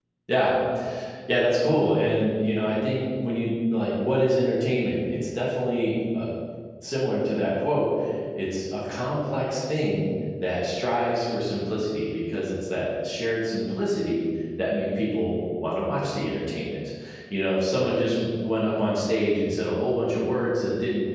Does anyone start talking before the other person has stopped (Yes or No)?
No